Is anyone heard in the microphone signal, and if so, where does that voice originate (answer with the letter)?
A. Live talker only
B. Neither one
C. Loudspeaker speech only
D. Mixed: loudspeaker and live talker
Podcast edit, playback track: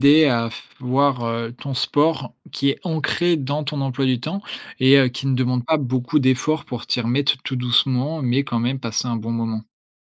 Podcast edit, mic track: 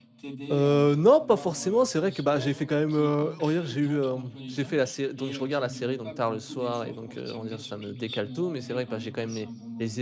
D